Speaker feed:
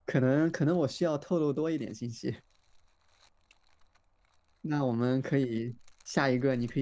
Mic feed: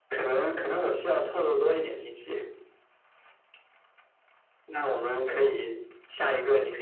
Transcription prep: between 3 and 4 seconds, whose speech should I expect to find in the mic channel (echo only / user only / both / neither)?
neither